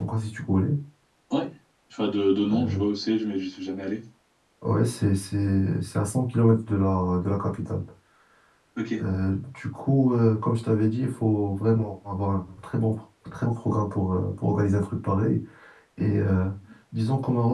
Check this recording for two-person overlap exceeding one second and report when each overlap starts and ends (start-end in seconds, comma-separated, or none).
none